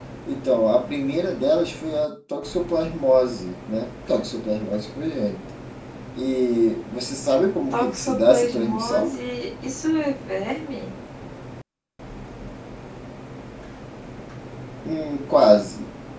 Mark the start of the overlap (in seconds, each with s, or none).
7.7 s